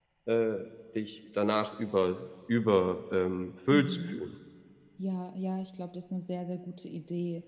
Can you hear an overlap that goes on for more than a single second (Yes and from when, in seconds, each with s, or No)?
No